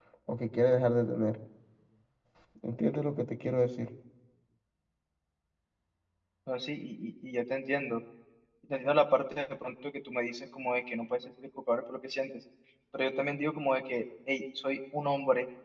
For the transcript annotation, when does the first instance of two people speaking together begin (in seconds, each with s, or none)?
none